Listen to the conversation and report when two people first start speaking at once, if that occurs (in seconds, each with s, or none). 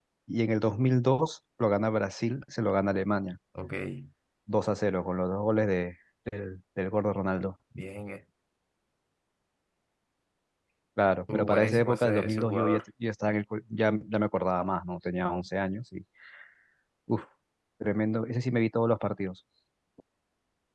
11.3 s